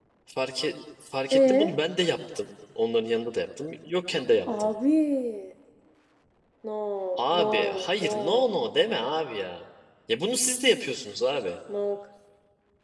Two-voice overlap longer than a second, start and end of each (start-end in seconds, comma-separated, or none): 7.2-8.5